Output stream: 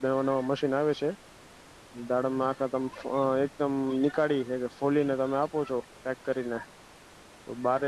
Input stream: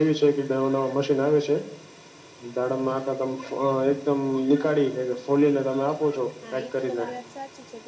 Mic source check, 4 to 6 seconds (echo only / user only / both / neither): echo only